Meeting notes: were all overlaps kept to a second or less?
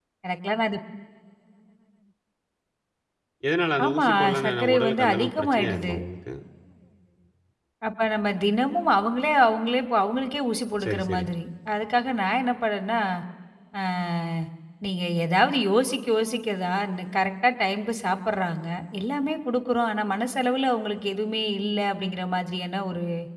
No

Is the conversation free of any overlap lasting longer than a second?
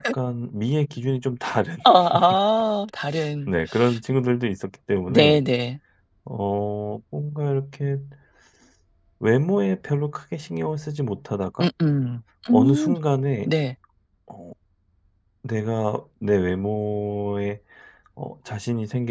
Yes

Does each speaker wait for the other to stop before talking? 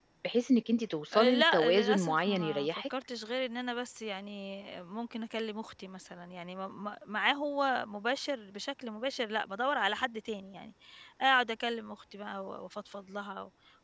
No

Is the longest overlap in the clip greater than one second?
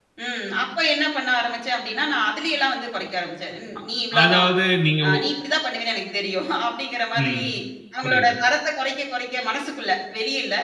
No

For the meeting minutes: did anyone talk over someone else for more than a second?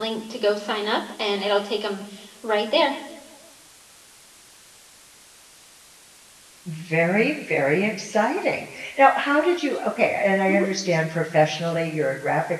No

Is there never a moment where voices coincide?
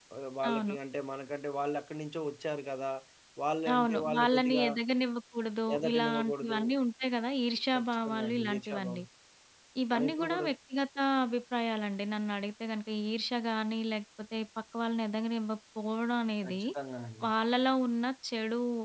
No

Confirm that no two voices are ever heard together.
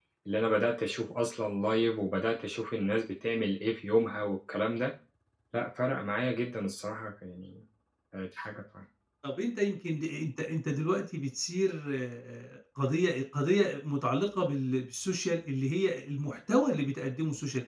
Yes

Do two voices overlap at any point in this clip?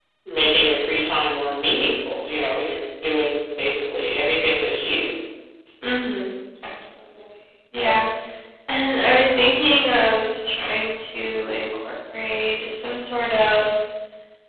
No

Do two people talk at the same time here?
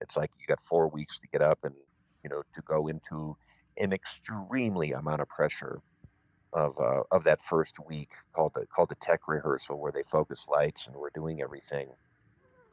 No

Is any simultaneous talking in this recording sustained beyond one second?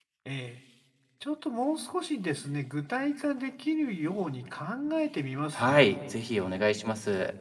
No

